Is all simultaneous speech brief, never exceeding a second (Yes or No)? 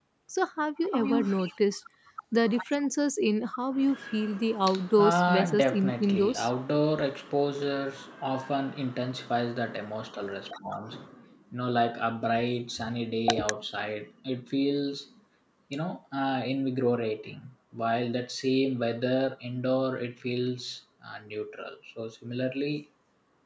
No